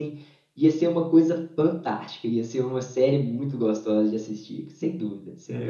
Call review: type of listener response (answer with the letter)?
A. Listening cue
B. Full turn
B